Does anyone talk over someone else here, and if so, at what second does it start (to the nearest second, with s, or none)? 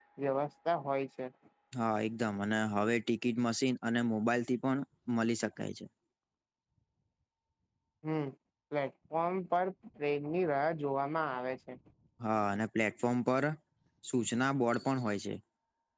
none